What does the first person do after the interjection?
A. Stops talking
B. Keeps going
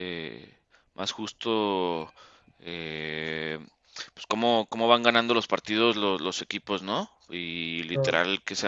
B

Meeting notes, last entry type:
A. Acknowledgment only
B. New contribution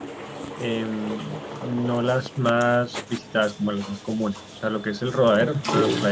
A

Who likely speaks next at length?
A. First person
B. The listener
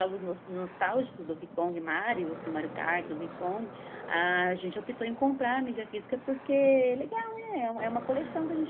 B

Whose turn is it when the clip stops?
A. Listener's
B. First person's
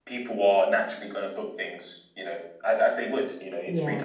B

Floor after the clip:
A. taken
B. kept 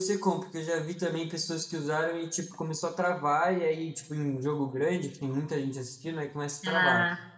B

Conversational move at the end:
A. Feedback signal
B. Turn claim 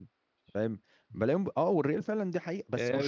B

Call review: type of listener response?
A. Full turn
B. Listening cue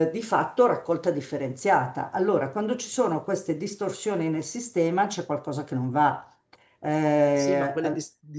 A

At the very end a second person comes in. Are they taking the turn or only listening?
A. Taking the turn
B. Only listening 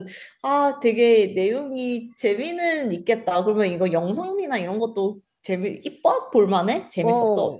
A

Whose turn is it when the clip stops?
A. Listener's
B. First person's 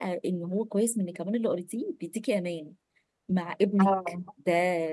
B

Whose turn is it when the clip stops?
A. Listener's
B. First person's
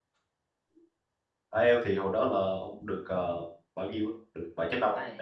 A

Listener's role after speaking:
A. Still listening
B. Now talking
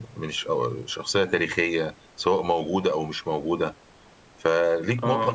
A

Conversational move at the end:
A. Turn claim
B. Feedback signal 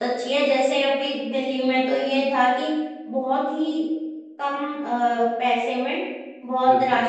B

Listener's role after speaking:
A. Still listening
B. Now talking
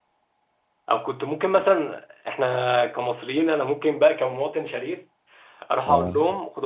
A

